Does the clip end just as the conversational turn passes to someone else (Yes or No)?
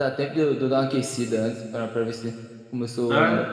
No